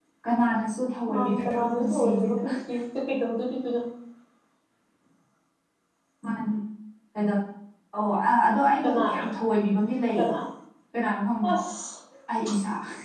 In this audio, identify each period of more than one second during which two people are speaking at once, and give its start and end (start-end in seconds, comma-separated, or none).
1.1-2.4